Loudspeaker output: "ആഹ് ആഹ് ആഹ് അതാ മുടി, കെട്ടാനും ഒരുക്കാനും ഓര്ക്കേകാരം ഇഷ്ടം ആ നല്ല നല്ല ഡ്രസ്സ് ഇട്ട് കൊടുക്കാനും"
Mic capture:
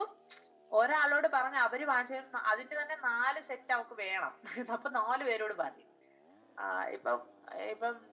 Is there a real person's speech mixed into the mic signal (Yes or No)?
Yes